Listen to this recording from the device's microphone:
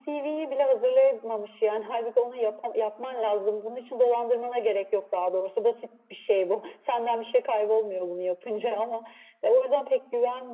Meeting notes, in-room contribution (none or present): none